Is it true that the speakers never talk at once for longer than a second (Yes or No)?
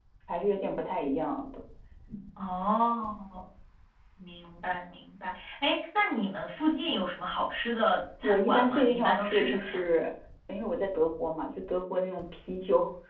No